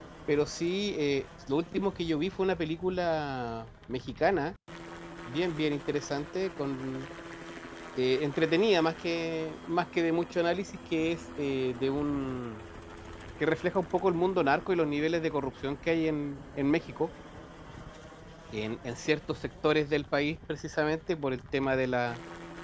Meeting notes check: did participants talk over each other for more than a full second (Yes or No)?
No